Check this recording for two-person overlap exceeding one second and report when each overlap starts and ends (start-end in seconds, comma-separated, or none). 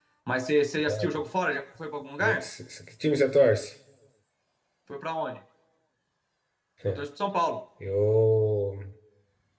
none